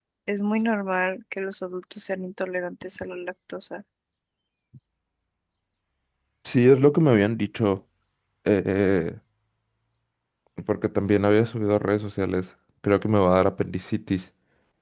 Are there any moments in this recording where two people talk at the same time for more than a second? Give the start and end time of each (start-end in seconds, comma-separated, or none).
none